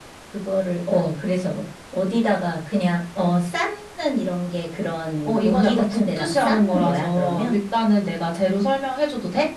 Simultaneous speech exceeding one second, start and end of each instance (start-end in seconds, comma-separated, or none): 5.2-7.5